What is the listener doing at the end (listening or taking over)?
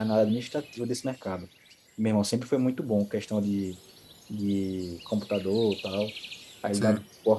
listening